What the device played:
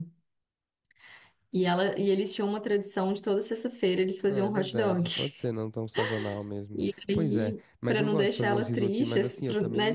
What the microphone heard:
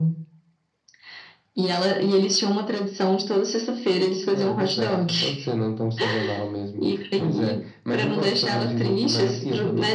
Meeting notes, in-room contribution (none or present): none